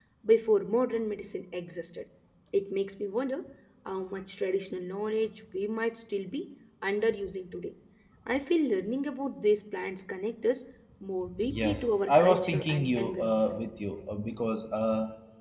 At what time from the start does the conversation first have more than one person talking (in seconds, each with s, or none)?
11.6 s